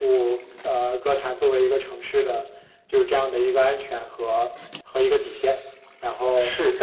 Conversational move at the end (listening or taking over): listening